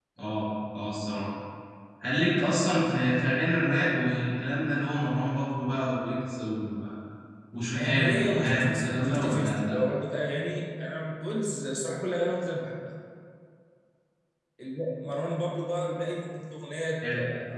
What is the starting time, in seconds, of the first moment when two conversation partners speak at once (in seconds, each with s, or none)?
7.8 s